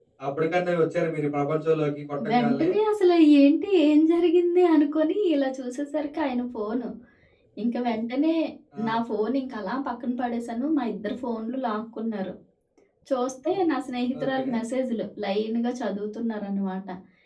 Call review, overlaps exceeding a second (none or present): none